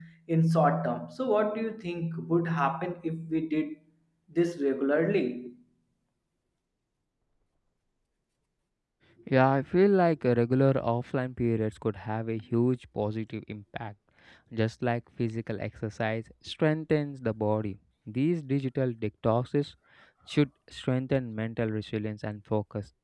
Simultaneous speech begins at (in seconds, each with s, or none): none